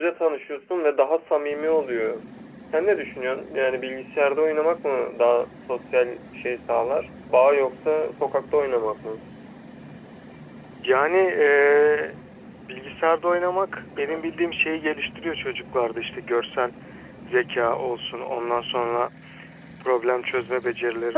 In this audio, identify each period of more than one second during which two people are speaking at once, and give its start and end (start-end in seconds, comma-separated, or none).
none